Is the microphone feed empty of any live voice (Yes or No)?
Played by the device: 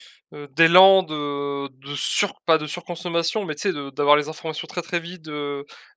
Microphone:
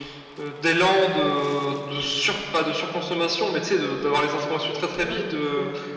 No